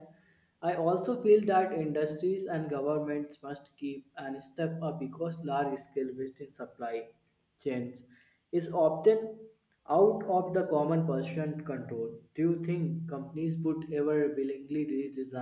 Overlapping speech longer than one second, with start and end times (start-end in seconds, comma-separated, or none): none